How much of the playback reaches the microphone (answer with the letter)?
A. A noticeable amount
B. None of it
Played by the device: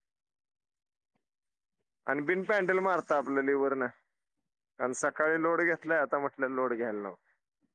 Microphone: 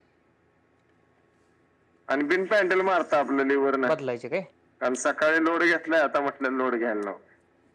A